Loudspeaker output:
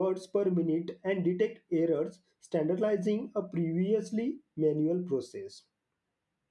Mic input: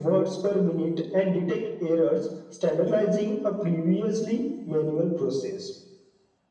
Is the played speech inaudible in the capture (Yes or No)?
No